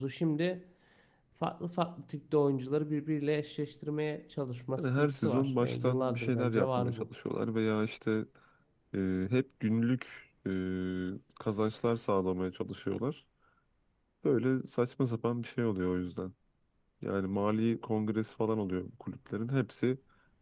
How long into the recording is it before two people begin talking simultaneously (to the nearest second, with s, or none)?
5 s